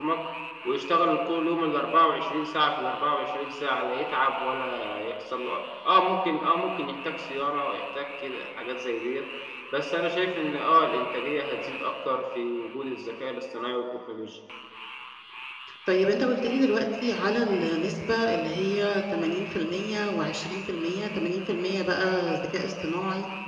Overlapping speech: No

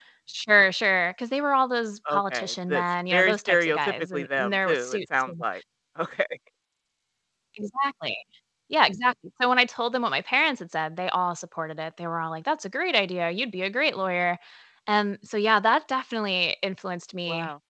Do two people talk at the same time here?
Yes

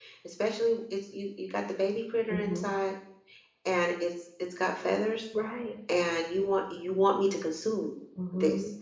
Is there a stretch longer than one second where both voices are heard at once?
No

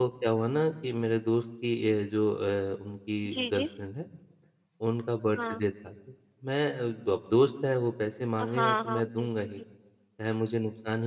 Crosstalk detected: Yes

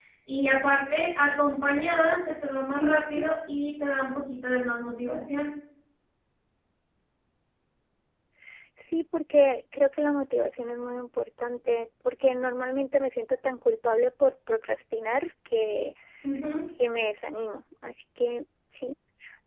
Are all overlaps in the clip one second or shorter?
Yes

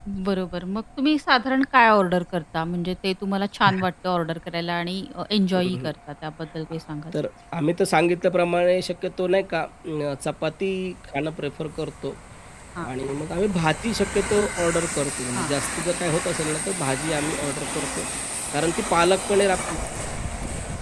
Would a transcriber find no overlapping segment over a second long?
Yes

